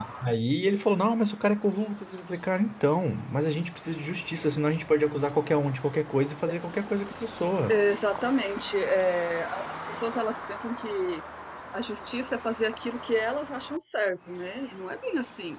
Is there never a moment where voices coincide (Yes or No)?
Yes